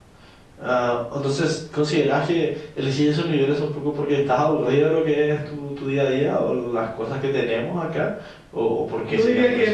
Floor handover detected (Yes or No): Yes